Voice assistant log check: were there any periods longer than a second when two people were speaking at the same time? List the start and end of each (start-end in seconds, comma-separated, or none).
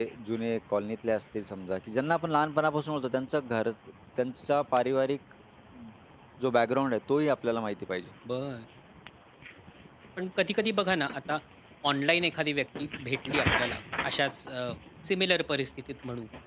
none